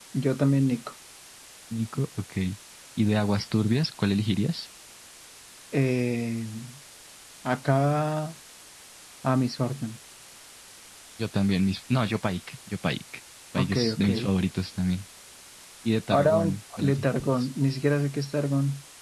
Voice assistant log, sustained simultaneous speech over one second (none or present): present